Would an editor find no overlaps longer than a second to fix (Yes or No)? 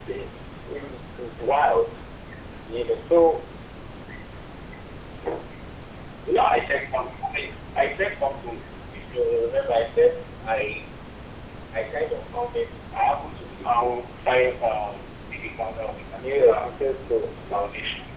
Yes